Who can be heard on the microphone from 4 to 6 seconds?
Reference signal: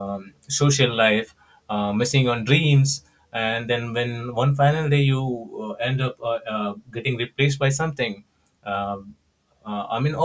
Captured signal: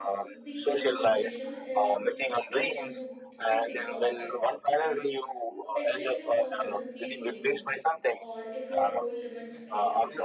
both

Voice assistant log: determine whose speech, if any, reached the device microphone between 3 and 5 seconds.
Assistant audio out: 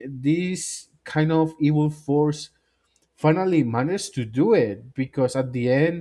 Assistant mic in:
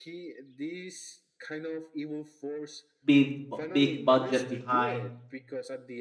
both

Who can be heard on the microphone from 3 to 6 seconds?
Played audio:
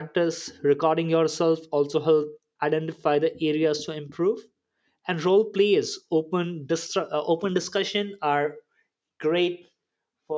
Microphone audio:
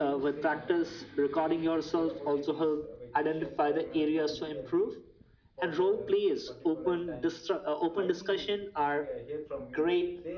both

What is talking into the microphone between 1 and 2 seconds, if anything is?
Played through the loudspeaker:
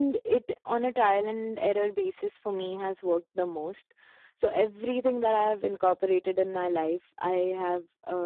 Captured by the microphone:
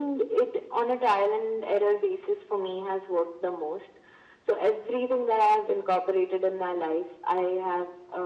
echo only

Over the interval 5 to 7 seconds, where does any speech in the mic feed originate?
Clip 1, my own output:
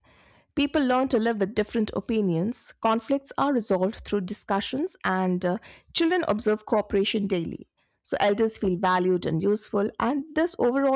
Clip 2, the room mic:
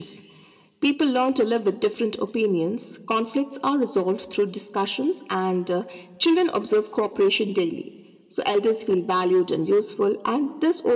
echo only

